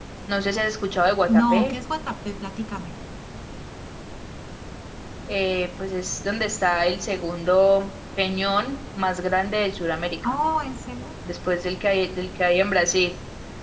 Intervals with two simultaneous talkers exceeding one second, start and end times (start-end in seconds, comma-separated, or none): none